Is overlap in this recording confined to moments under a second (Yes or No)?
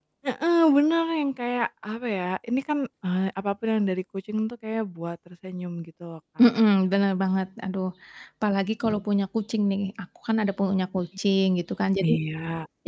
Yes